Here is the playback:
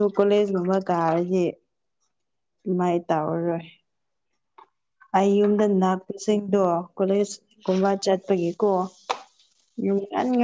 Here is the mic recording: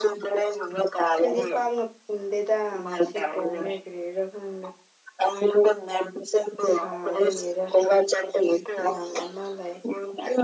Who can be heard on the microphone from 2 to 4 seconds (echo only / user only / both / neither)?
both